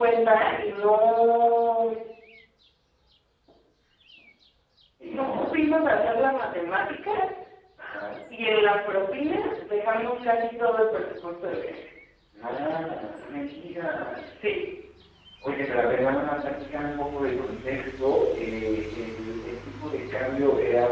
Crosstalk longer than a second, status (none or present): none